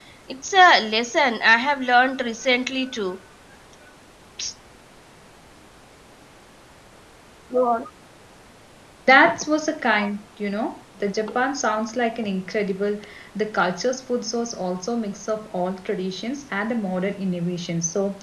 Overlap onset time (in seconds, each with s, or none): none